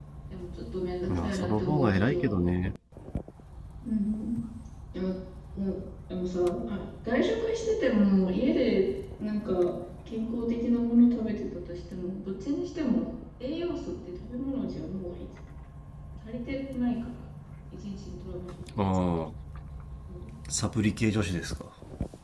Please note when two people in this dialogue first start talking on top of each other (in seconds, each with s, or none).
1.1 s